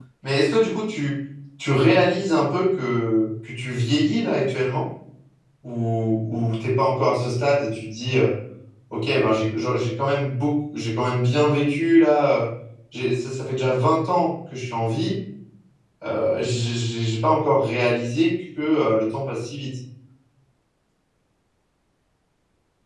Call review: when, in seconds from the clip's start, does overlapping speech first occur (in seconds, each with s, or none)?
none